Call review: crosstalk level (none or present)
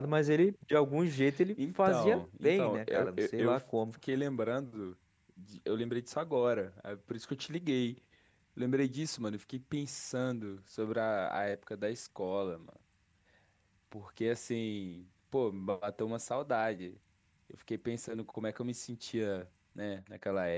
present